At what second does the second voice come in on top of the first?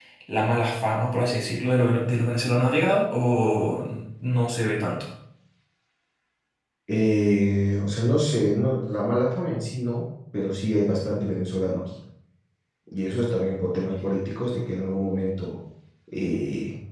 none

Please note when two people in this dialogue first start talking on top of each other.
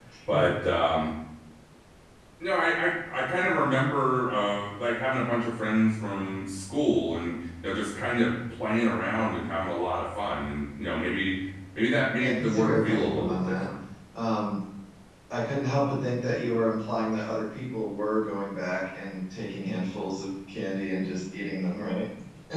12.2 s

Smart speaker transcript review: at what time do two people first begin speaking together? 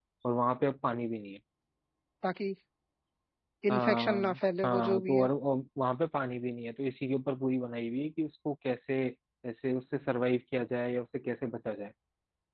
3.7 s

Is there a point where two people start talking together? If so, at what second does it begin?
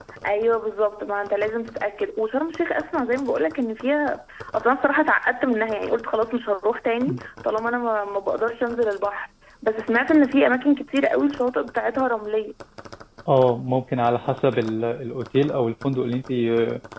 none

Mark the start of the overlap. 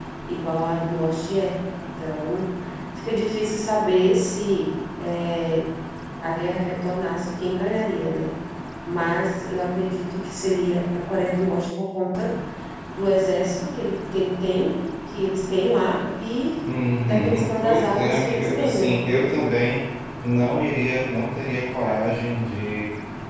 17.0 s

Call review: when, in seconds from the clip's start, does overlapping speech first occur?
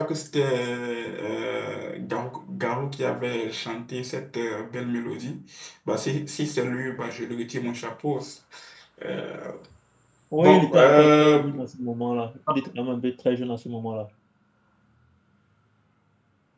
10.4 s

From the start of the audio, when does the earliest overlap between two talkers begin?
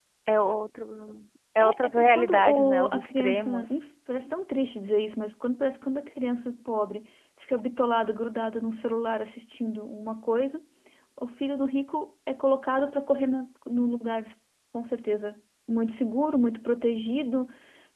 1.6 s

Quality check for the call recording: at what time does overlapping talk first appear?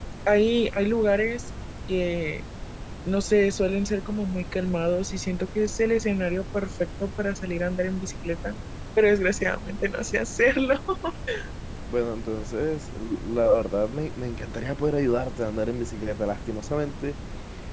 none

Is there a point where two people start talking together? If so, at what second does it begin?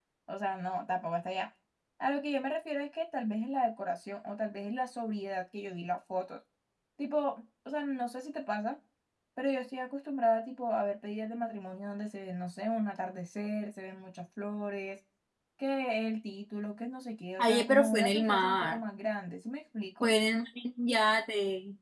17.4 s

